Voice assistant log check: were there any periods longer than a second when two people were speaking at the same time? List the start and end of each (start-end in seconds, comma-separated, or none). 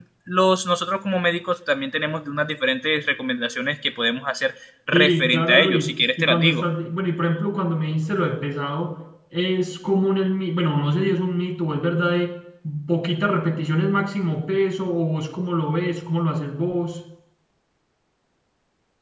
4.9-6.7